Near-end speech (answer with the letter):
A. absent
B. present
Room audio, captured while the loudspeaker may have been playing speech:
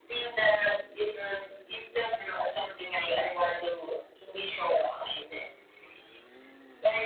A